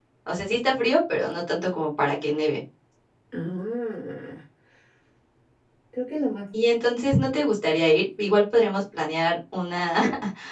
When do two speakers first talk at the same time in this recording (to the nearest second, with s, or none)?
none